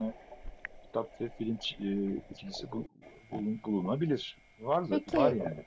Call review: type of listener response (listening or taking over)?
taking over